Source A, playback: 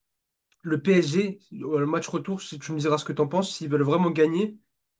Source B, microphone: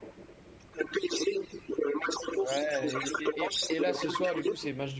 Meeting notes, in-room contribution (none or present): present